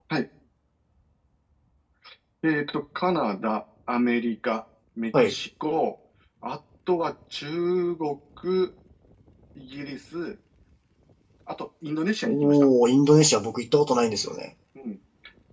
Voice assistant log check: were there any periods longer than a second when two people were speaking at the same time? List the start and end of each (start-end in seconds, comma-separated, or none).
none